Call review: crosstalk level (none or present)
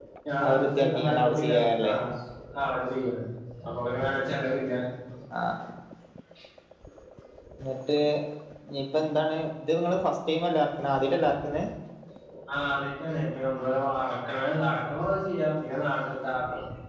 present